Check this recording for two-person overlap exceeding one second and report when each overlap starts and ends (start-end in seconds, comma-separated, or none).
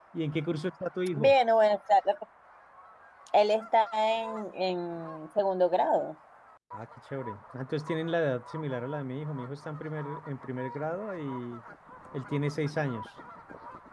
none